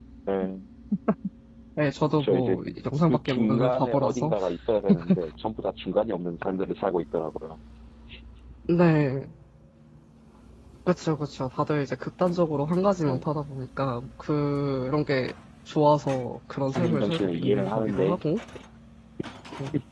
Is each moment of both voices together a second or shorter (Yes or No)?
No